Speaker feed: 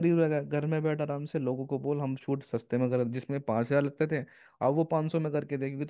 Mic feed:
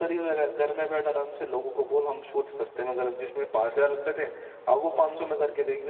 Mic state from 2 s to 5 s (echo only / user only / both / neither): echo only